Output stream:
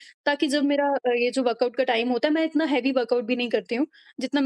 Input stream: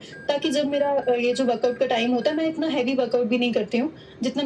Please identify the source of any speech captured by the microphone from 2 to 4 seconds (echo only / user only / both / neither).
echo only